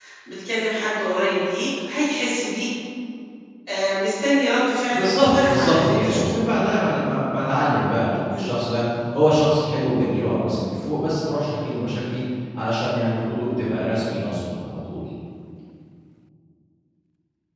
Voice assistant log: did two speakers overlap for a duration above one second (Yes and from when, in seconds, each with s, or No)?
Yes, from 4.9 s